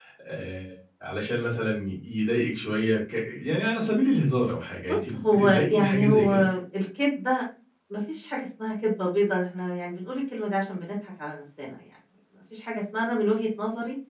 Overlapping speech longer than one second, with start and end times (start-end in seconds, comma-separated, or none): 4.9-6.3